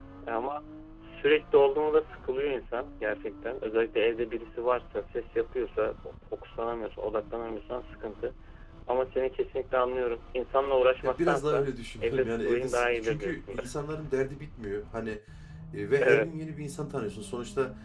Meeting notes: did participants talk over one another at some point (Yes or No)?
Yes